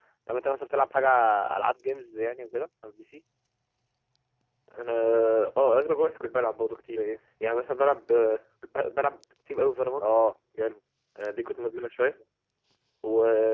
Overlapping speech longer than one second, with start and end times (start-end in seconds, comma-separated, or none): none